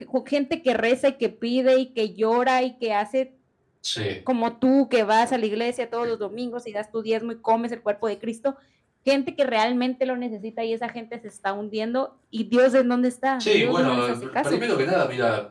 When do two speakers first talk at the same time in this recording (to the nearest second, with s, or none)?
13 s